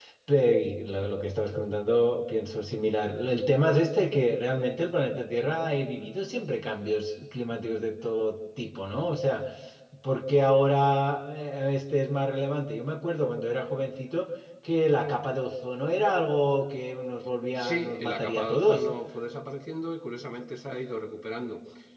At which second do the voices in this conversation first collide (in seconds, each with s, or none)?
17.6 s